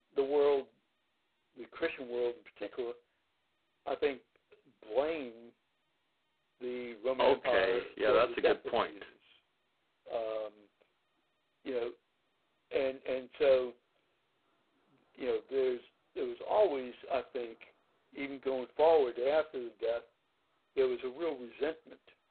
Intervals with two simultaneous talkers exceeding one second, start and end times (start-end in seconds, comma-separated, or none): 7.2-8.9